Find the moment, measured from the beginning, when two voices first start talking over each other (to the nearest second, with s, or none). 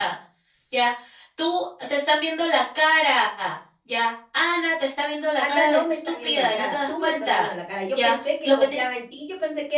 5 s